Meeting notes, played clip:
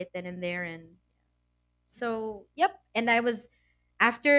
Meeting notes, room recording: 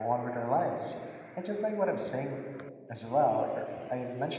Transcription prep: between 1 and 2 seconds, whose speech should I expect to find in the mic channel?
user only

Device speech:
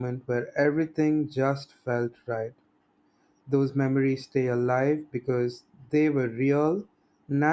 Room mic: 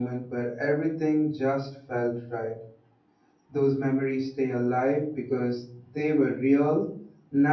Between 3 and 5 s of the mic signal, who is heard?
echo only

